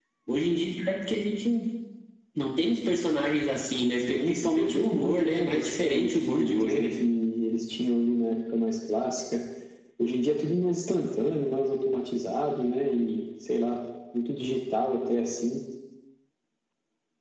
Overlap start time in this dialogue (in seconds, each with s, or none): 4.1 s